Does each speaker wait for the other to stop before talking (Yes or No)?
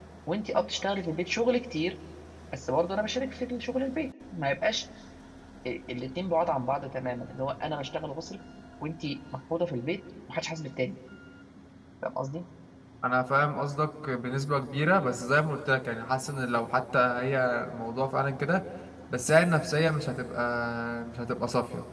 Yes